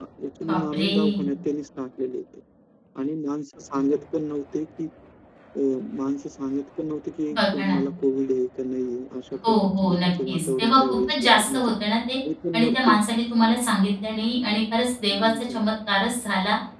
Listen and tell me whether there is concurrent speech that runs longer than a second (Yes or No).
Yes